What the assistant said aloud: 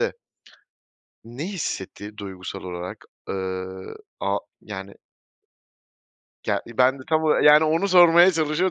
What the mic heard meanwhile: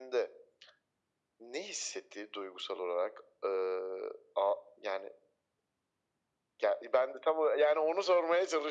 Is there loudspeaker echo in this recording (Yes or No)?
Yes